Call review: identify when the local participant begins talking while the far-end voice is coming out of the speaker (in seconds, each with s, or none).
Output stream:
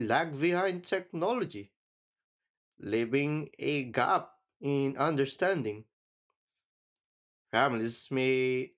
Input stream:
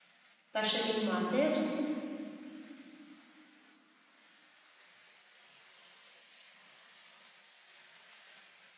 0.5 s